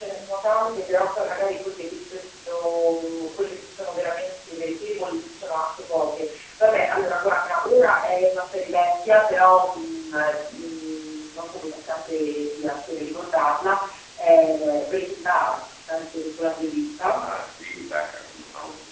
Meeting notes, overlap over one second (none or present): none